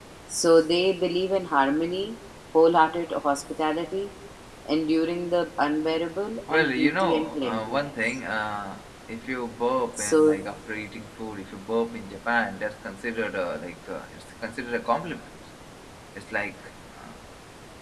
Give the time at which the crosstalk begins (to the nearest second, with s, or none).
6 s